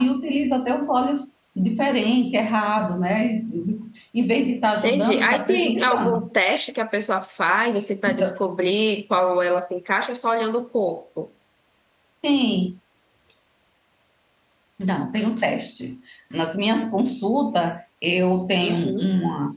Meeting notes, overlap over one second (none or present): present